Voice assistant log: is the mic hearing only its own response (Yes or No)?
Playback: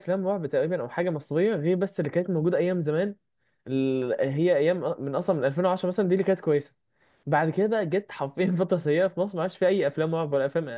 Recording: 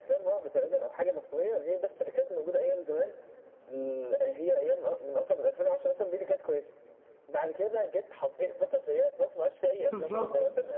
No